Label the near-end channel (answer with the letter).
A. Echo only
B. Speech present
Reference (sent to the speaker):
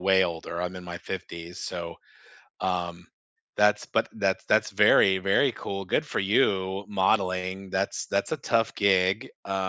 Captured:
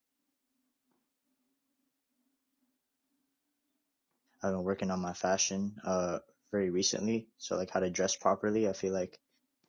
B